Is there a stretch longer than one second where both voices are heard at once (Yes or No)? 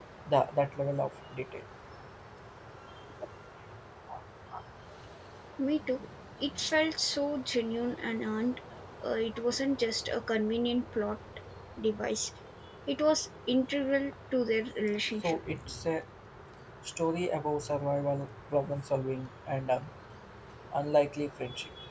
No